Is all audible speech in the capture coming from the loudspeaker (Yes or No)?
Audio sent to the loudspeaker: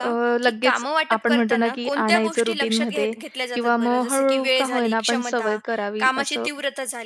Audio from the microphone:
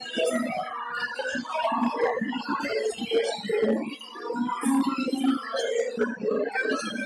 Yes